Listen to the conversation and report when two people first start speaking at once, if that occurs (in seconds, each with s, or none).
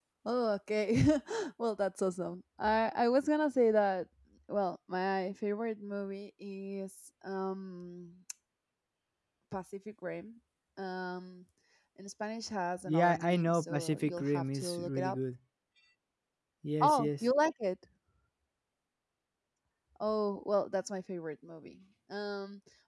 12.9 s